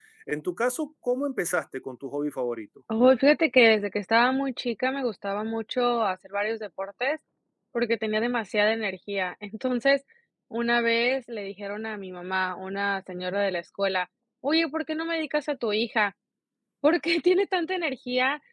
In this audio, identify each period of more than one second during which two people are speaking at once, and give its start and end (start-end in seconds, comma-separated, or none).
none